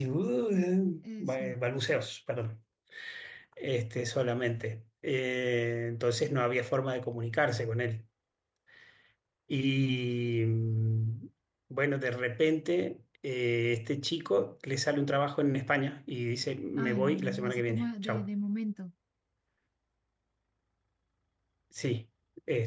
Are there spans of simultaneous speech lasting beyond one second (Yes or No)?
Yes